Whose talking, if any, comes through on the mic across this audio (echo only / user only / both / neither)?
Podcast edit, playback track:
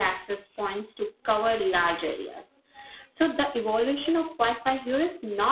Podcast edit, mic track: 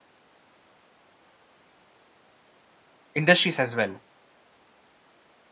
user only